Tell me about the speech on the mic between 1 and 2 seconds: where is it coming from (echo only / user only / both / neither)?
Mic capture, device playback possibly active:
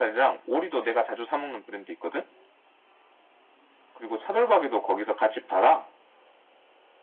echo only